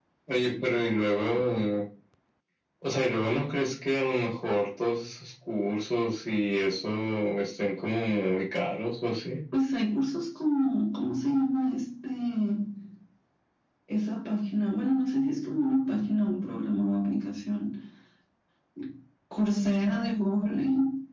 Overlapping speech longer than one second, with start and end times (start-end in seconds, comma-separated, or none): none